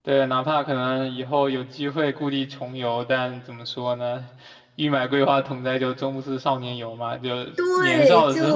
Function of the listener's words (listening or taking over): taking over